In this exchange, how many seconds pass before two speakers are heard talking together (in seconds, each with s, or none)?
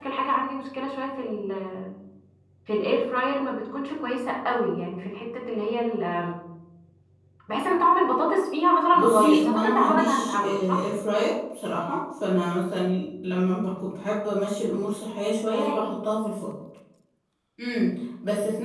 8.9 s